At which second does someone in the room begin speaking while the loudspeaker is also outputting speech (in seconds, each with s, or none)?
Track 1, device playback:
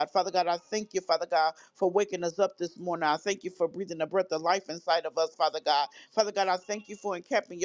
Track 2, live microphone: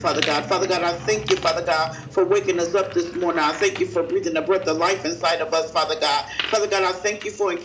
none